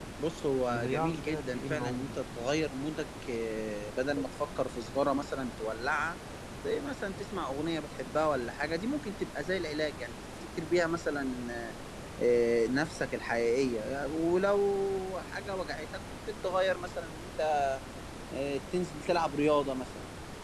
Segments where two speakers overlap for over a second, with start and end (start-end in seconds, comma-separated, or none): 0.7-2.2